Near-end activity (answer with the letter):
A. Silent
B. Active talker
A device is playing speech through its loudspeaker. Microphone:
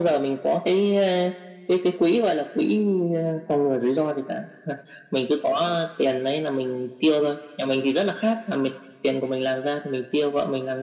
A